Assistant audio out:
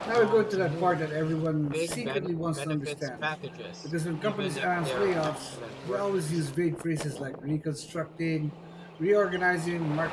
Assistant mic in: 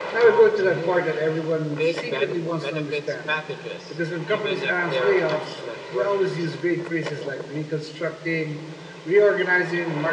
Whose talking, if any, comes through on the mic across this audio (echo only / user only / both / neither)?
echo only